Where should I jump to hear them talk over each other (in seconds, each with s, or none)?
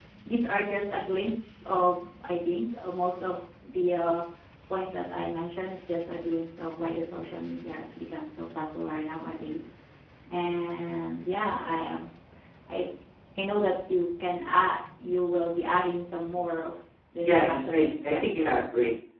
17.2 s